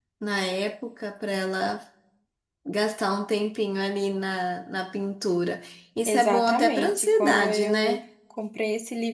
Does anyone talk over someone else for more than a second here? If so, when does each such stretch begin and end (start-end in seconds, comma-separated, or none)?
6.0-8.0